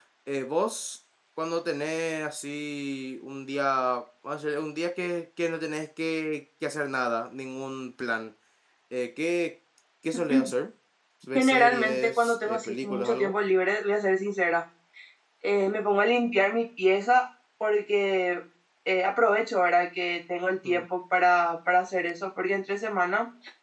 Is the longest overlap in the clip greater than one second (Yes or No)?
Yes